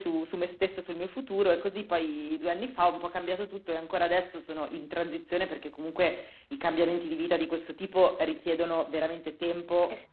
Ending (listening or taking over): taking over